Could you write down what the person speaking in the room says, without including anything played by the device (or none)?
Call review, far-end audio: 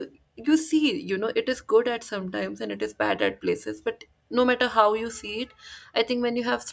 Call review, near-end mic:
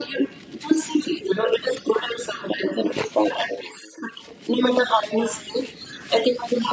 none